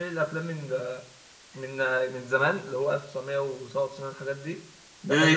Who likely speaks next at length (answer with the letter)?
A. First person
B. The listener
A